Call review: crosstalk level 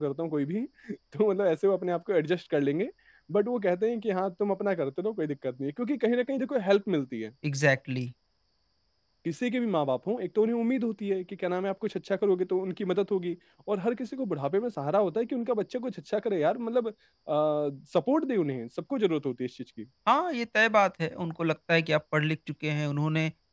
none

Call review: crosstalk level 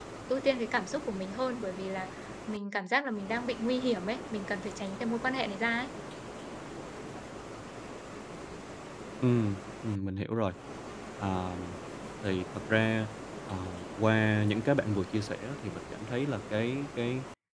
none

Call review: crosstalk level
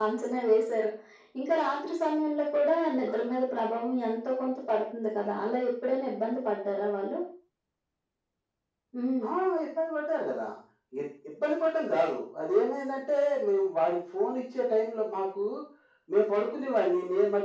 none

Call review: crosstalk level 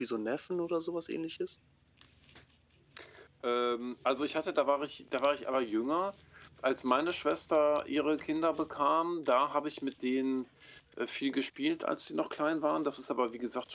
none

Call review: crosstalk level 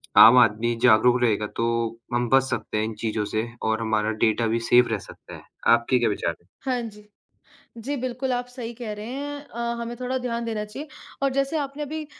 none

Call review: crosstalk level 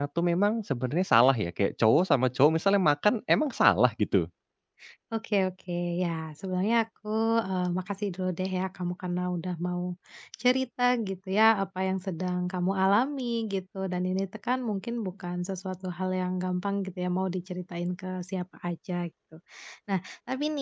none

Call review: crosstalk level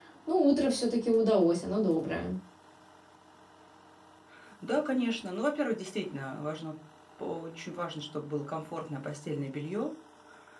none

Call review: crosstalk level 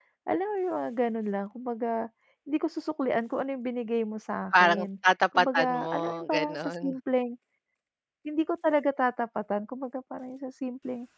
present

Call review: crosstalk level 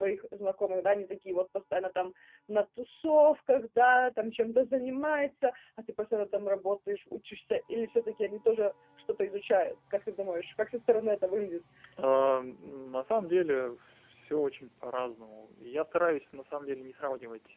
none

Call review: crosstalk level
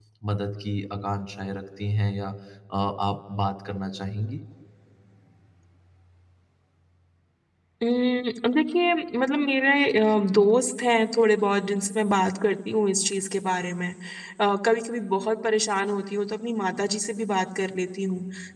none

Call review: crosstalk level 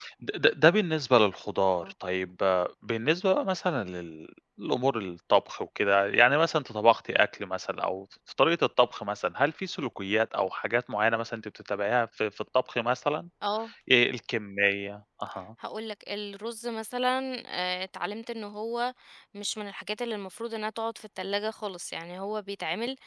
none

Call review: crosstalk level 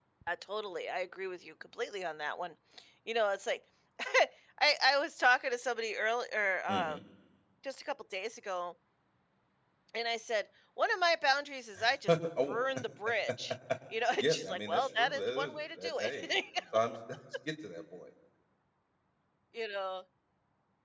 present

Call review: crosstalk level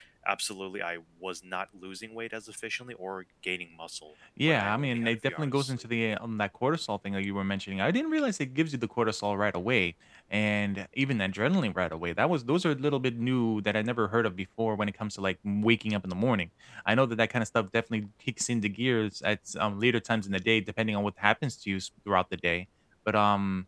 present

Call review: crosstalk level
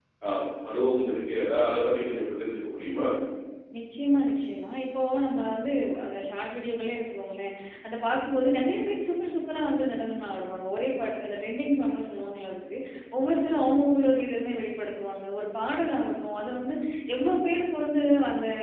none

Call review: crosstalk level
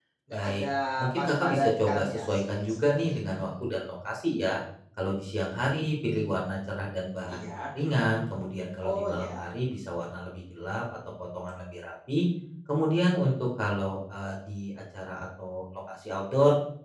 present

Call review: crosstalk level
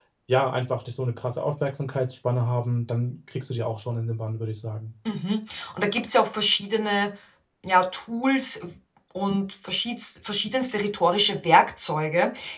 none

